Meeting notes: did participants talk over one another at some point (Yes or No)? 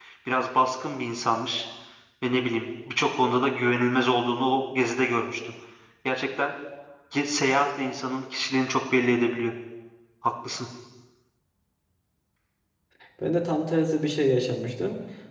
No